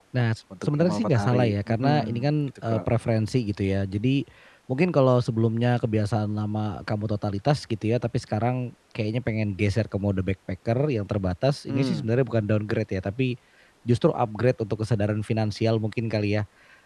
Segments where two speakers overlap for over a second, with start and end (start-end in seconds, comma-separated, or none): 0.7-2.8